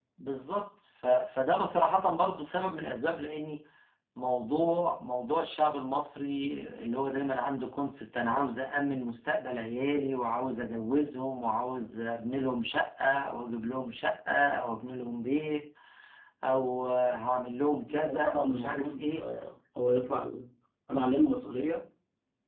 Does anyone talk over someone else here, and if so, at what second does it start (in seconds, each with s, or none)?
17.9 s